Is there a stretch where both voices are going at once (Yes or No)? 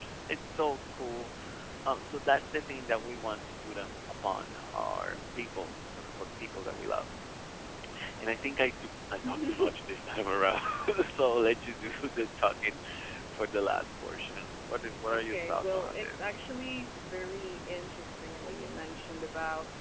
Yes